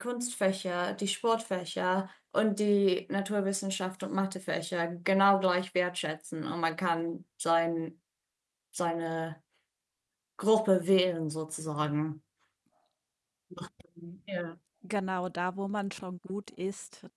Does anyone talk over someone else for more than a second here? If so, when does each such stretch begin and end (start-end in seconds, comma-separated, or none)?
none